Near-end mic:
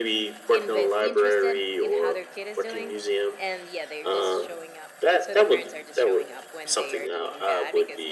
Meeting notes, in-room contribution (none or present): present